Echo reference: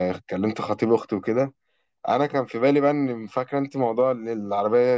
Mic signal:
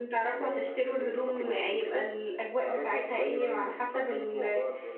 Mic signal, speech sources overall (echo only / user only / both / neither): both